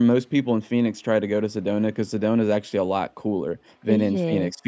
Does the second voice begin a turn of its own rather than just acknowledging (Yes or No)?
No